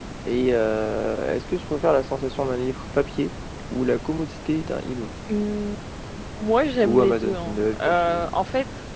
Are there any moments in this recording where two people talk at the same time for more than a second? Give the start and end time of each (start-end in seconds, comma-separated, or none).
6.8-8.3